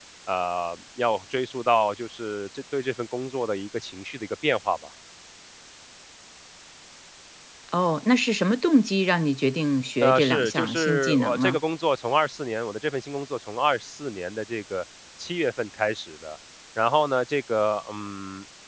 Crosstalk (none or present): present